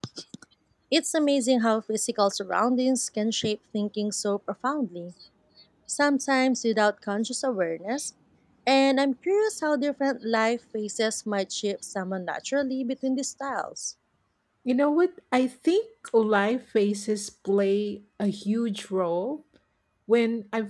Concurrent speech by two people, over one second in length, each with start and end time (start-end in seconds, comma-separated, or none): none